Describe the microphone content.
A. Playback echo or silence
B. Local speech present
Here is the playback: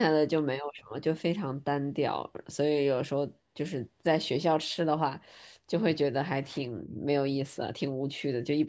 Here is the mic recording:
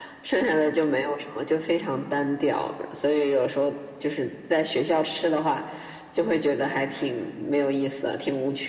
A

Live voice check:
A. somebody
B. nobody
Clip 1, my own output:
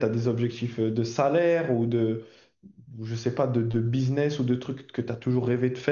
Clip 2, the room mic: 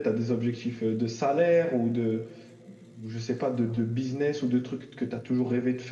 B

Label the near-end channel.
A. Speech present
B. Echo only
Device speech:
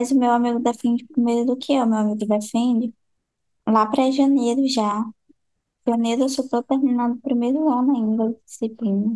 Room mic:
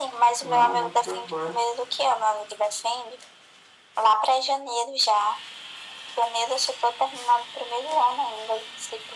A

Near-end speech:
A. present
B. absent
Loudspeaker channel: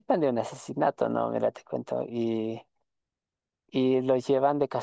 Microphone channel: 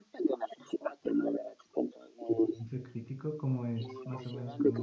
A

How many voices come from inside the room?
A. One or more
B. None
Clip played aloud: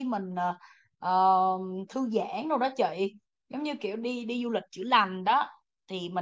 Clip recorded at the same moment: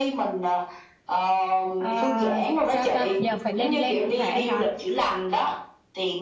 A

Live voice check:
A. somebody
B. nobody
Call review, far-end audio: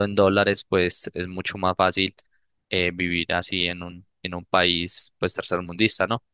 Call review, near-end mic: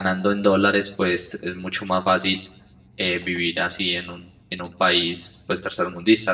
B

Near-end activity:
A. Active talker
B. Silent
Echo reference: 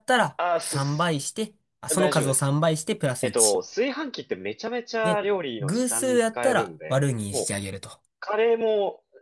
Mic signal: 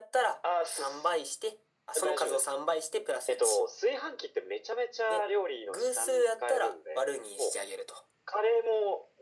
B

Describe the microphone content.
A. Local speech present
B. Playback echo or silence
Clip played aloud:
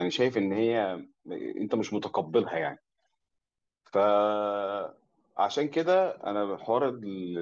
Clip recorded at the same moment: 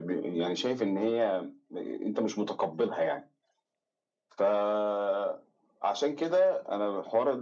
B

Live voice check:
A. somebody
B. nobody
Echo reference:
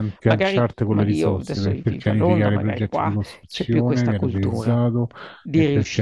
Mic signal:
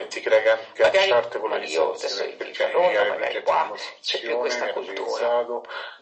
B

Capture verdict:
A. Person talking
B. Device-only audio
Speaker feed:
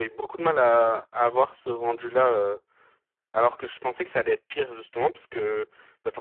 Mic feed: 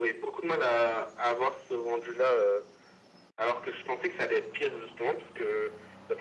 B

